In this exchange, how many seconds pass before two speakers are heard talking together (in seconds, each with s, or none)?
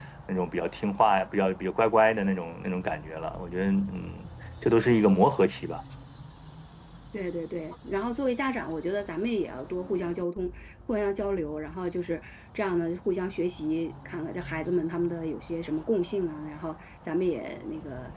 none